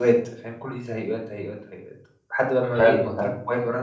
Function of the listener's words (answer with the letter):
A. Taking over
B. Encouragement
B